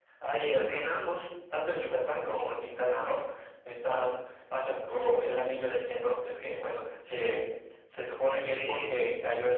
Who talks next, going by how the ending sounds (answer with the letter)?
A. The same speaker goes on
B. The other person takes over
A